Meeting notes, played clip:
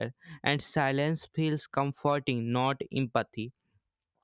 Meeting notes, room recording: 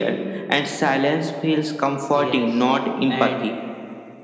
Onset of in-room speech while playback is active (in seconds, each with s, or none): 2.1 s